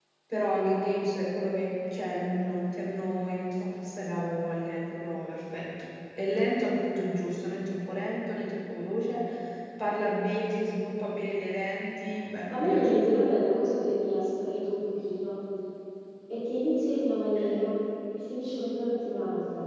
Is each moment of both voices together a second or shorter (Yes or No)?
Yes